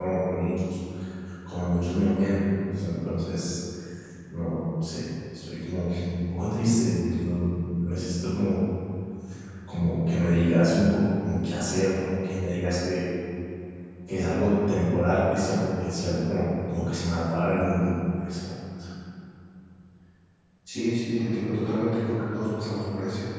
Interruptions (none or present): none